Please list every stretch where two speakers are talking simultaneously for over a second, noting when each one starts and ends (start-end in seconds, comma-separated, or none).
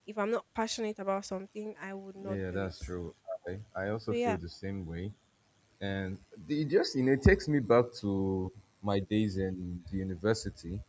none